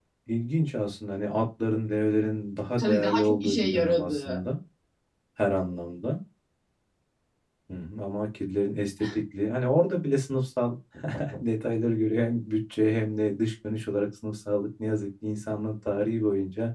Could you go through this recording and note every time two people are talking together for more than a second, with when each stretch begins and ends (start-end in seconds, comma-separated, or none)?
2.8-4.4